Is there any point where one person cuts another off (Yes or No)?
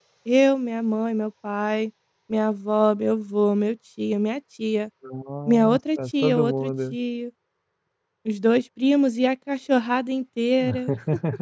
Yes